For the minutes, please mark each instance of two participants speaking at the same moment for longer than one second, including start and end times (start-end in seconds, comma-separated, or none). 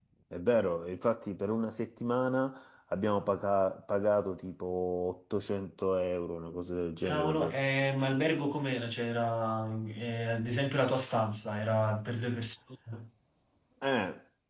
none